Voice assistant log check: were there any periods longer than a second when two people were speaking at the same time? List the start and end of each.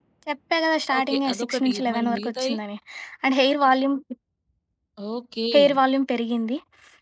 1.0-2.5

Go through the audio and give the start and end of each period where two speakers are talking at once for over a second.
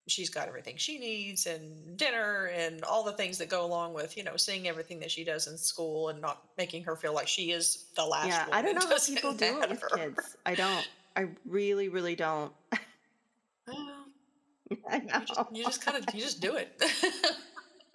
8.2-10.0

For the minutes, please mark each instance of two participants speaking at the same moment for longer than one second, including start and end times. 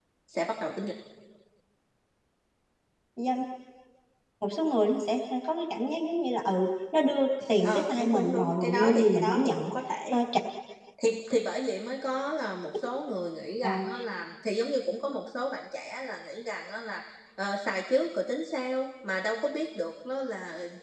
7.6-9.7

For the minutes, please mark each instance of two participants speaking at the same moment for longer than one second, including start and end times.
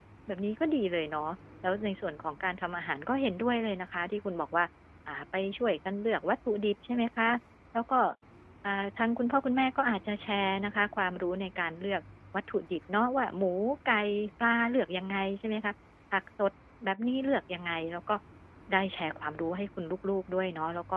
none

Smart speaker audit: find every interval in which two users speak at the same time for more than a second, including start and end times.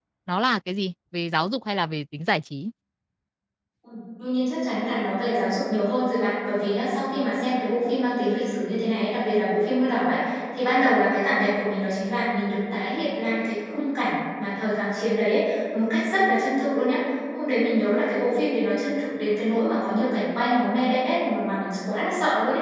none

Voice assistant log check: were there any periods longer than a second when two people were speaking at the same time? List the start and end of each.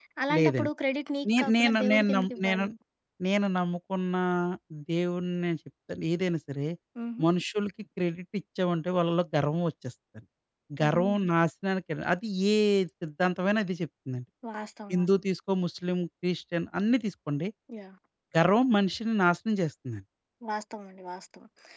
1.4-2.6

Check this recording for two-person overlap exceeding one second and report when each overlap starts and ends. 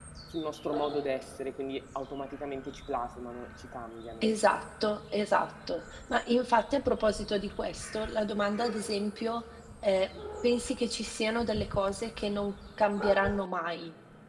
none

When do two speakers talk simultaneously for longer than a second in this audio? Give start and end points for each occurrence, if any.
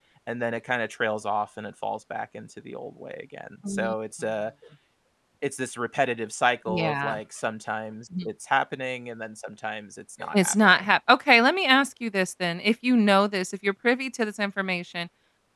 none

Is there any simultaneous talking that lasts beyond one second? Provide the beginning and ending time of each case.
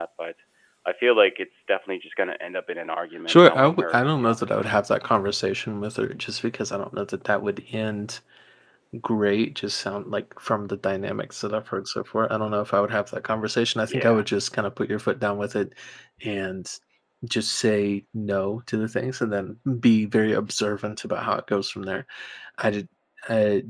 3.3-4.6

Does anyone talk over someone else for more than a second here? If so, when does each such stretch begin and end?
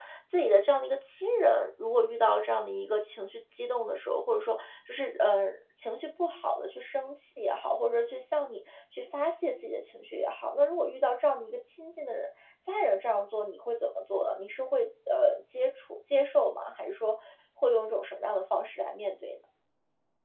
none

